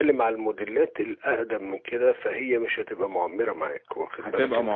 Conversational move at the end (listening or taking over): taking over